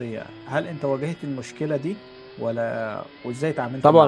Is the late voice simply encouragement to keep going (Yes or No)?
No